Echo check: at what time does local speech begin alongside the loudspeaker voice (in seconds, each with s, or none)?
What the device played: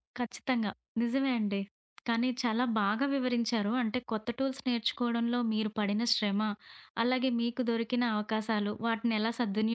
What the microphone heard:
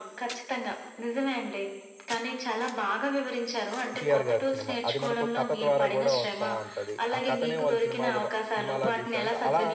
3.9 s